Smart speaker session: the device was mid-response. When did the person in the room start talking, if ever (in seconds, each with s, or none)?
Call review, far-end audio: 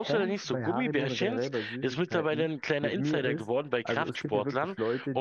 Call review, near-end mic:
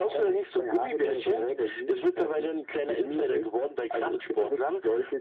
none